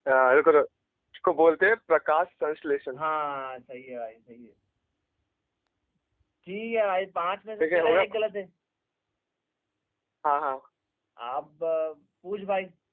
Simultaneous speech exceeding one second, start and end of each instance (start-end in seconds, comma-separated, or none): none